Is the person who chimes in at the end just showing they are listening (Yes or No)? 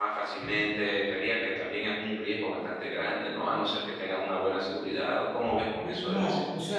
No